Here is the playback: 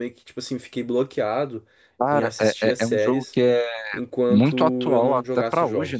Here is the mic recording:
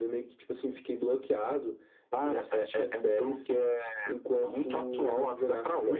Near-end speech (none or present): none